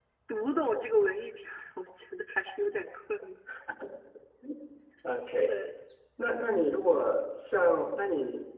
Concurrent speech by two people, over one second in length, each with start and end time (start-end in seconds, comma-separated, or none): none